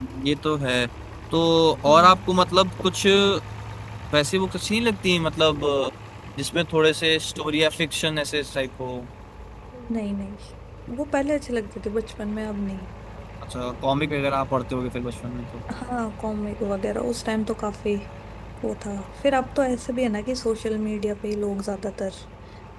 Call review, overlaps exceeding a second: none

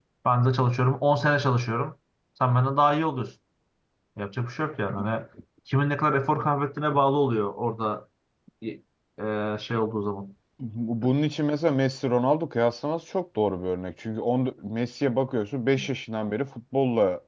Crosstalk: none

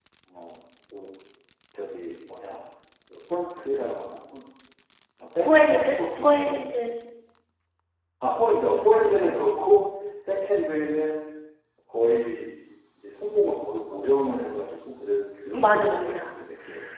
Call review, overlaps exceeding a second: present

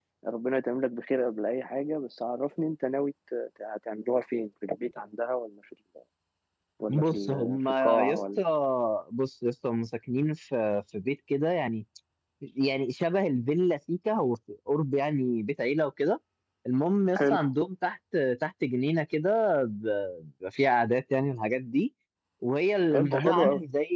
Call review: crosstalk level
present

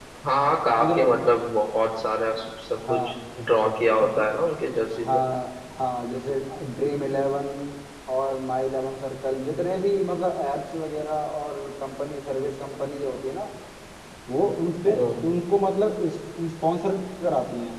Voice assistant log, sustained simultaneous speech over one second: none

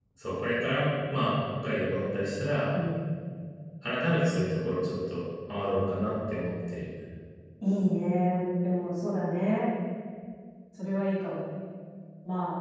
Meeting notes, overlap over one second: none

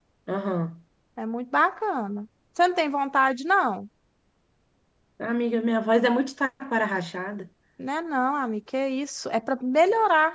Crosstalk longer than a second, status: none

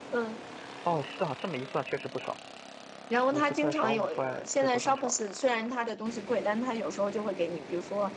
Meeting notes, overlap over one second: present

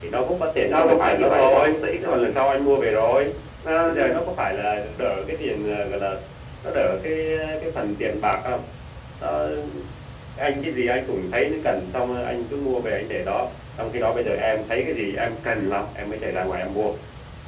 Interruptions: present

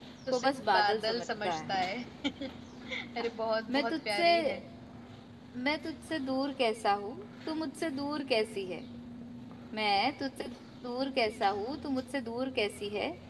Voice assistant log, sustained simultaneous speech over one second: present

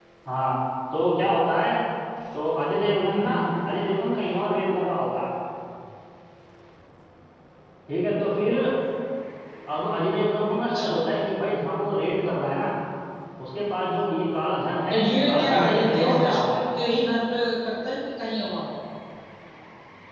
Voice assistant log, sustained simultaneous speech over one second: present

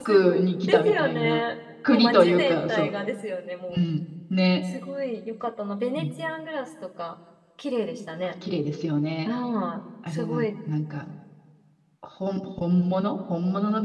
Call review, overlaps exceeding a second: present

